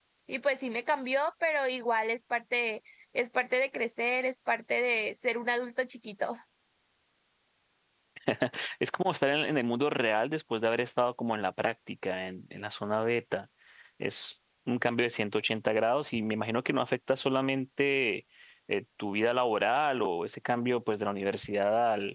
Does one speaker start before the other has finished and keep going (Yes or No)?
No